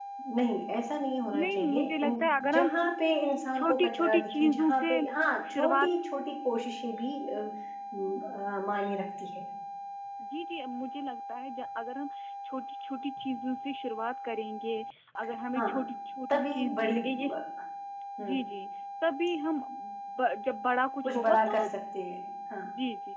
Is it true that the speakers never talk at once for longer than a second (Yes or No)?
No